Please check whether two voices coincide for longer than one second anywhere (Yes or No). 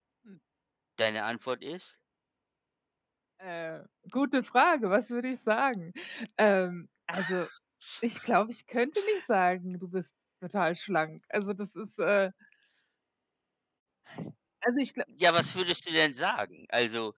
No